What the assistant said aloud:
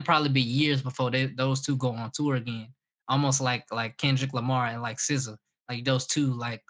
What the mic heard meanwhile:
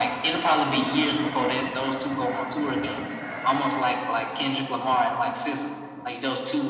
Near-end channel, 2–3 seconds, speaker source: echo only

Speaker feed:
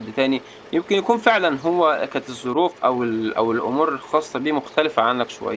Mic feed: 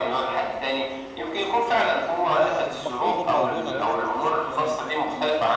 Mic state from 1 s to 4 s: both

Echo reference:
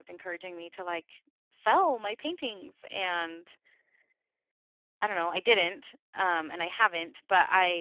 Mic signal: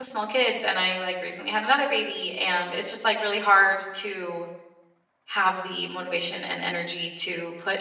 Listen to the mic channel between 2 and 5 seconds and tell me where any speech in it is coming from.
user only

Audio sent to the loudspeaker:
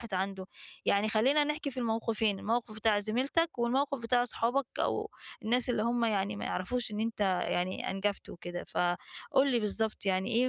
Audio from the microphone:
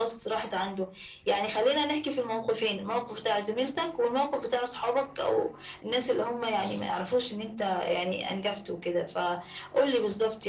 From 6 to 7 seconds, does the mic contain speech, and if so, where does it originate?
both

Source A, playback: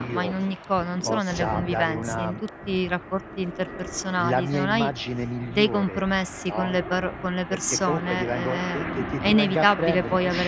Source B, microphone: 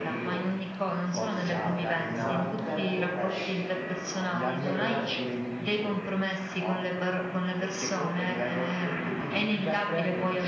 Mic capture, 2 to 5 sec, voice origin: both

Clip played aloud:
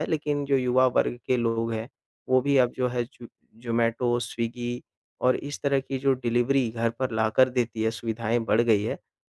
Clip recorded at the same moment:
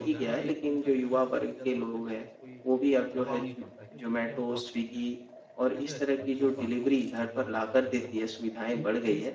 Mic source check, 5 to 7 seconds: both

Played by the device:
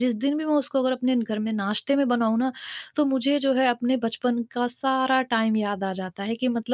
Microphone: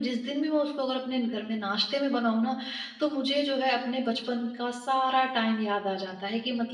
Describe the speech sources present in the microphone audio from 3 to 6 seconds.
echo only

